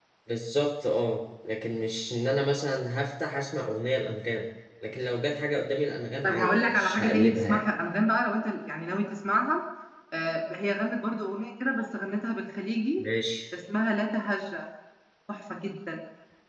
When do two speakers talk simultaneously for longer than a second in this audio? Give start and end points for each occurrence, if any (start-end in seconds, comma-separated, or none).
6.2-7.6